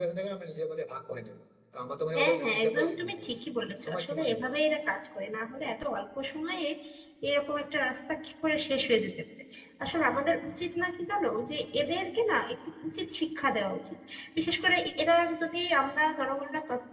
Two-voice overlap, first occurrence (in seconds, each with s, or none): 2.1 s